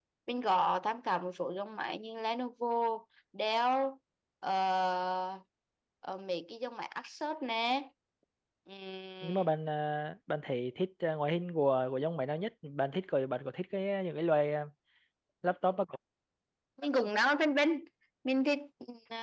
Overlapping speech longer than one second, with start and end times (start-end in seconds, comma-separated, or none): none